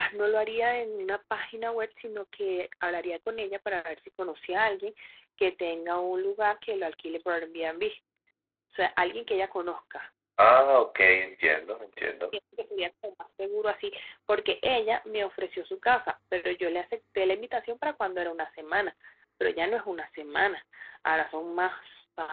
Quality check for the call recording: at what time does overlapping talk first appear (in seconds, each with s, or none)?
none